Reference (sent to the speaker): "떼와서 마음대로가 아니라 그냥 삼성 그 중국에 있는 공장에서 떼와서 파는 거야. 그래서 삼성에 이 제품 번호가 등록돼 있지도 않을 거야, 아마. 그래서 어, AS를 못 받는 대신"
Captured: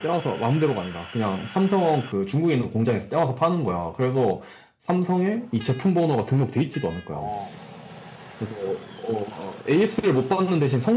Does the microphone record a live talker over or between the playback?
Yes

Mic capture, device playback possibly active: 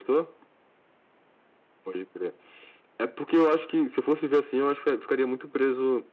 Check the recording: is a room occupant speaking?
No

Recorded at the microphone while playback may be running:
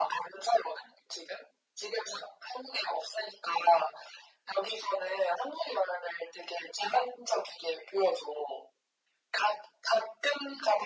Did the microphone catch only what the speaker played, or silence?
Yes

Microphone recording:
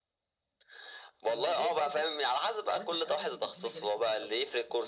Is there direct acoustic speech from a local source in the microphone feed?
Yes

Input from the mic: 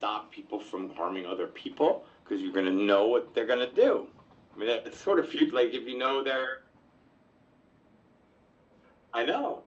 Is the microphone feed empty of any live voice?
Yes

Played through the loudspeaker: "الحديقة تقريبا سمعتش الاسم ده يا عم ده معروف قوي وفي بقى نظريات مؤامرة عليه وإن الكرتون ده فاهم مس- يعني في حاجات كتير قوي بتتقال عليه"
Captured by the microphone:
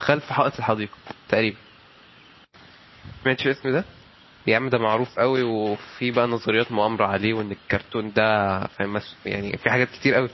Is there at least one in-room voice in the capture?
No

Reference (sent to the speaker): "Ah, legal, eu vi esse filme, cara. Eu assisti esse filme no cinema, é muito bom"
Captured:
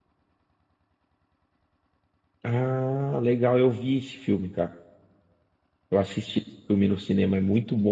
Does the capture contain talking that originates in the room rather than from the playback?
No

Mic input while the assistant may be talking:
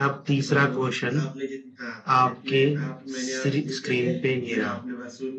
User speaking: Yes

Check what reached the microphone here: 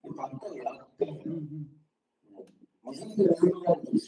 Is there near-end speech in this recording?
Yes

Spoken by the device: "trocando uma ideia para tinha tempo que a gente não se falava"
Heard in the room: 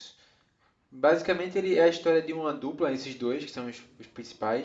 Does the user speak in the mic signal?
Yes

